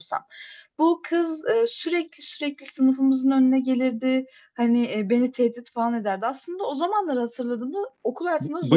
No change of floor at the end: No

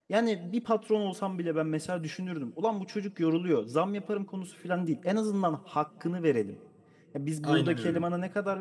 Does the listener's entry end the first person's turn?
No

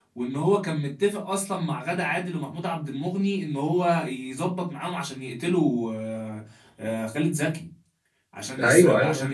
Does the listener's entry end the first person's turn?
No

